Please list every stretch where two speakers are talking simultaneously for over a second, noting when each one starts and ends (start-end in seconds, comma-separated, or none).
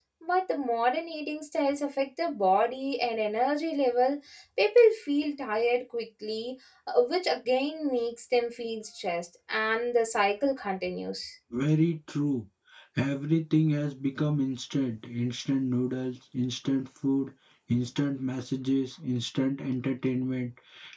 none